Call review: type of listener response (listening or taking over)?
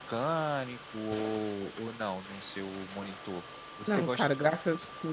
taking over